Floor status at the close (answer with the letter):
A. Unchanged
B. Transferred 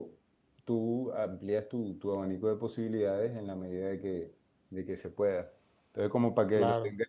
A